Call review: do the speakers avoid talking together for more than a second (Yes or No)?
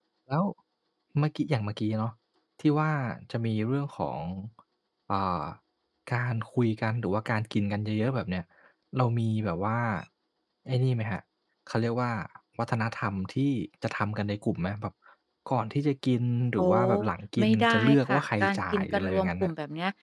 No